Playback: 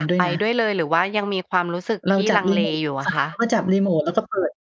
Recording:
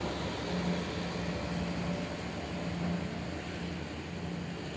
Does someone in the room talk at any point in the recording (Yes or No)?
No